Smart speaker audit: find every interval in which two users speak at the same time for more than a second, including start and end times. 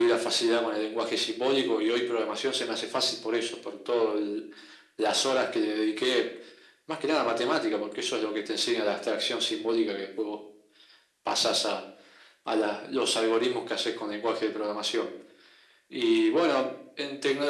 none

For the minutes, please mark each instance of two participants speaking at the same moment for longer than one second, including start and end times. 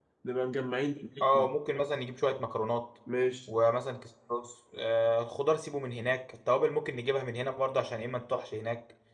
none

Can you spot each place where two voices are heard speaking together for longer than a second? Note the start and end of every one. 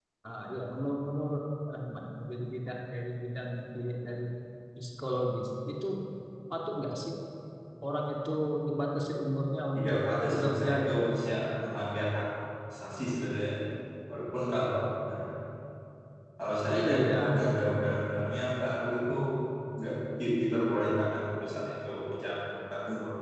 9.8-11.0, 16.8-18.1

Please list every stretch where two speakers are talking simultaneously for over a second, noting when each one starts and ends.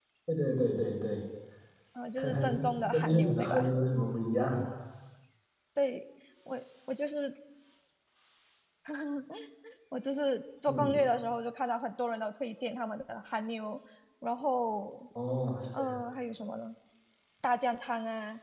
2.2-3.7

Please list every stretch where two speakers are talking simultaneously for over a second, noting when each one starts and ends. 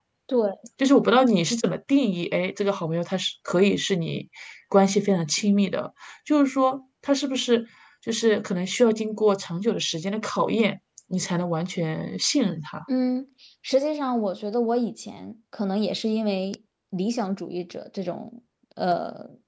none

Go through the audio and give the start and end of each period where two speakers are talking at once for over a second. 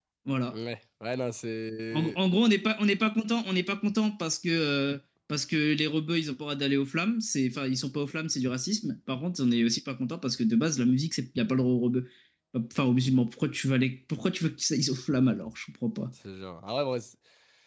none

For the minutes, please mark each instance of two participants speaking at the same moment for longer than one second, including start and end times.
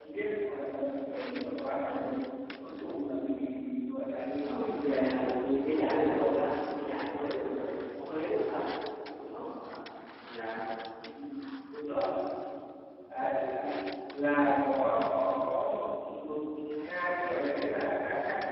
4.5-6.2

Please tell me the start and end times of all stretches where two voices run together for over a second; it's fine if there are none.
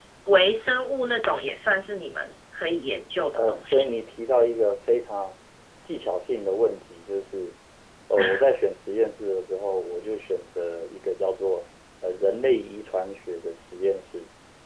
none

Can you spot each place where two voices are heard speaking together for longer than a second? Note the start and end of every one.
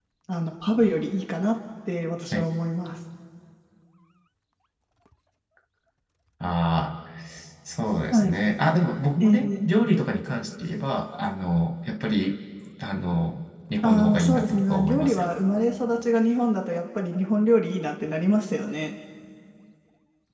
13.8-15.3

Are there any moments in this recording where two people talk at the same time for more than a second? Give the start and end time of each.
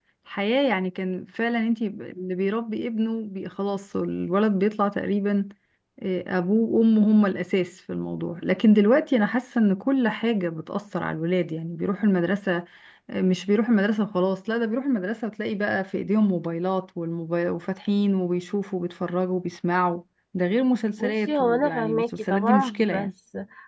21.0-23.1

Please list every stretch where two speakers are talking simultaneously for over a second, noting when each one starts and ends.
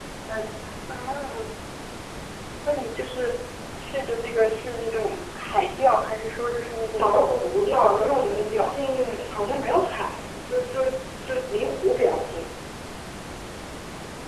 7.0-8.8

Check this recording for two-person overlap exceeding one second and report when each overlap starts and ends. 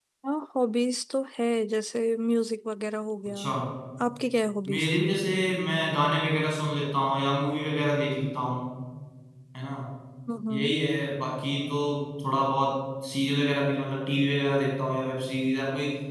none

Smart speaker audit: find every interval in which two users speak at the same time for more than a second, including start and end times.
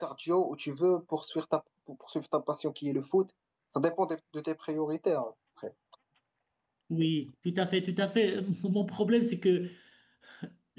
none

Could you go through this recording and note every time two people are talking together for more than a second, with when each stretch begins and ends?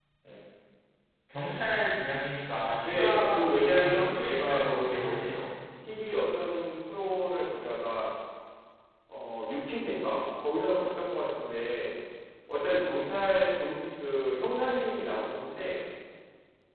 2.8-5.1

